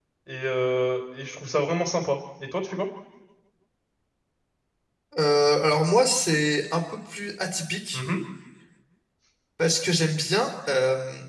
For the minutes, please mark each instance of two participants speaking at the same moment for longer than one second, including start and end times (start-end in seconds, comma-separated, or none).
none